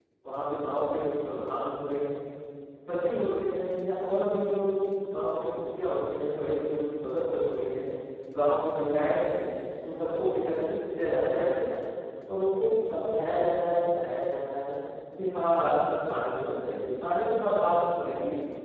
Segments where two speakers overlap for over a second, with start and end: none

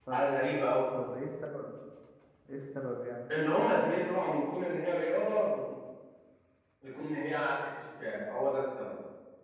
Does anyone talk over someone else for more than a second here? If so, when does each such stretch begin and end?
none

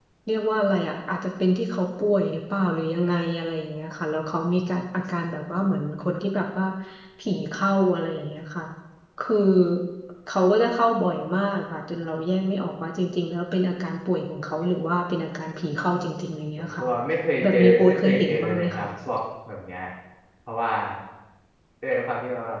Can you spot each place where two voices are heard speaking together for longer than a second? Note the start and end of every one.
17.4-18.9

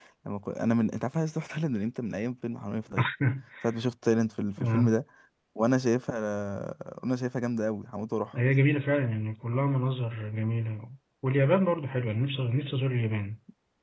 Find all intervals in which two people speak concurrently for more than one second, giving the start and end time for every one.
none

